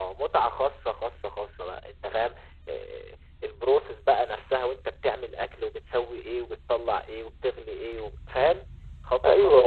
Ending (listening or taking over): taking over